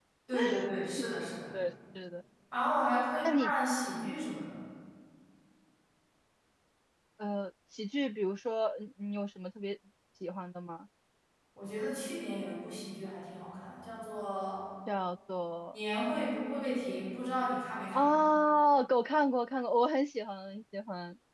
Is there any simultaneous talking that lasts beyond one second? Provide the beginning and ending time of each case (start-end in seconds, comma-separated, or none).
none